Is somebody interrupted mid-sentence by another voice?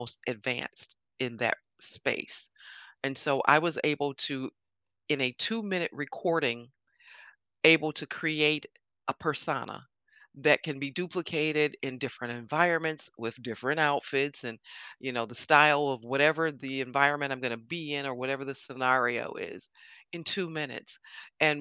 No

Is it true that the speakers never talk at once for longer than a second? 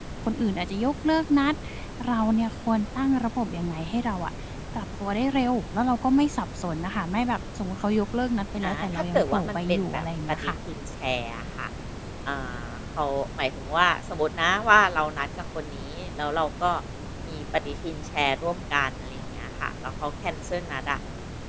No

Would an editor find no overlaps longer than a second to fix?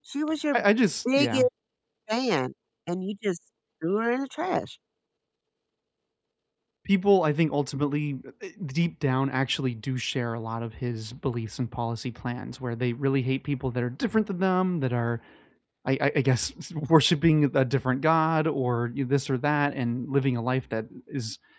Yes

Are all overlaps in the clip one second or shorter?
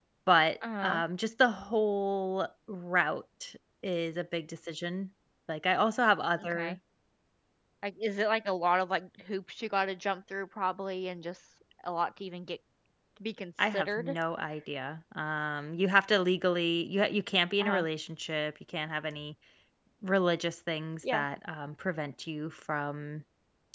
Yes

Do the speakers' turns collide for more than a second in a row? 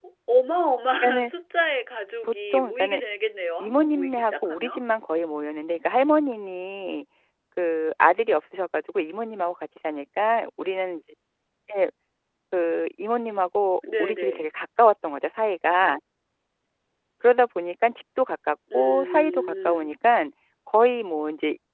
Yes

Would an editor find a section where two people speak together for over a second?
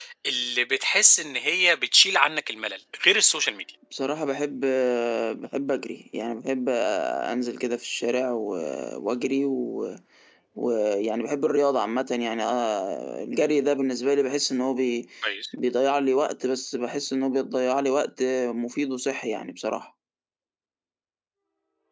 No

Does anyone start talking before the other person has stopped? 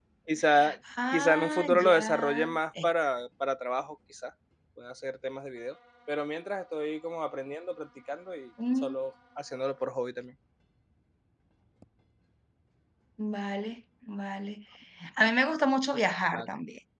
Yes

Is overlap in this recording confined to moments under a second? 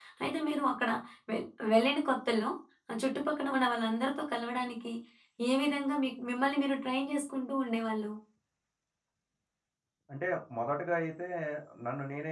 Yes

